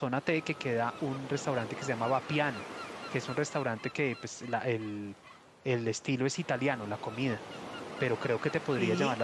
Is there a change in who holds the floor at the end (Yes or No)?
No